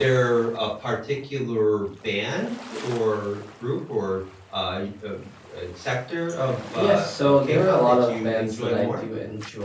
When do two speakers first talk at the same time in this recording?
6.7 s

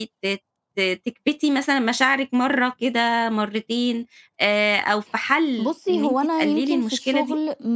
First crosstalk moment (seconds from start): 5.6 s

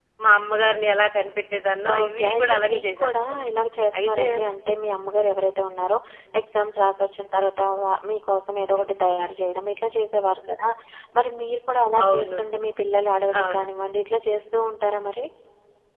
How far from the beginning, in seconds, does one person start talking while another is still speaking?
2.0 s

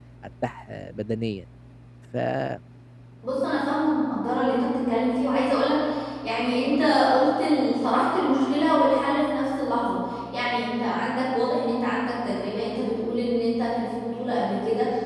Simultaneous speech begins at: none

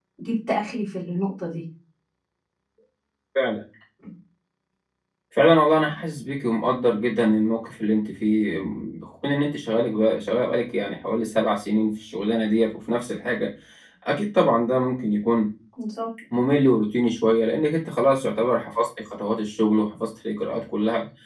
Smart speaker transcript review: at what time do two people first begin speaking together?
none

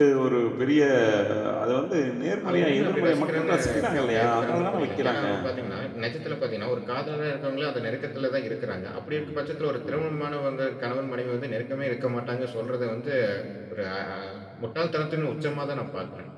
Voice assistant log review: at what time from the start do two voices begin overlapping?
2.4 s

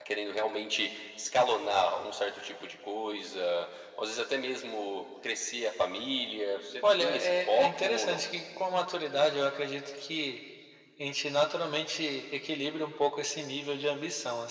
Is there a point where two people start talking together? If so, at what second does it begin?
6.8 s

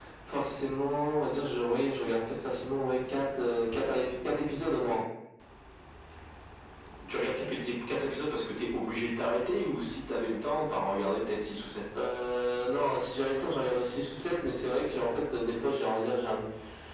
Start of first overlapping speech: none

